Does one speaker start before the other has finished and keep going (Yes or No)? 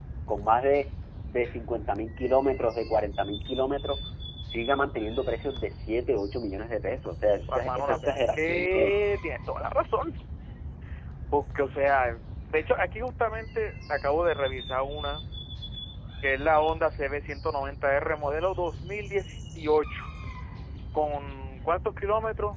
Yes